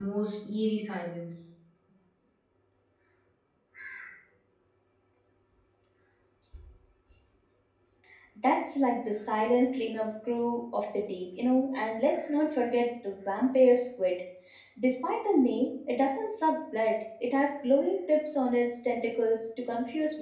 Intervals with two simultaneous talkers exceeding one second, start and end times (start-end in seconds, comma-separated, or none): none